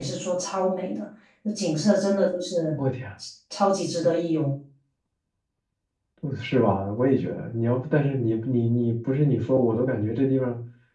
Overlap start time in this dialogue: none

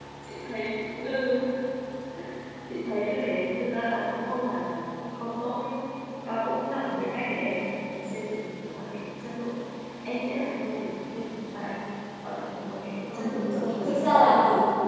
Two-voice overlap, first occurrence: 13.1 s

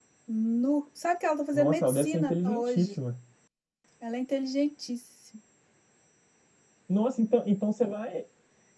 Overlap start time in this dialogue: 1.5 s

